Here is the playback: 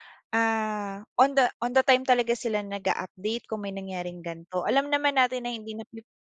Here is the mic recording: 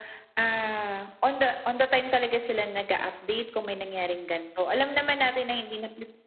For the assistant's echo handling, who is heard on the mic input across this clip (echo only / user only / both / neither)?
echo only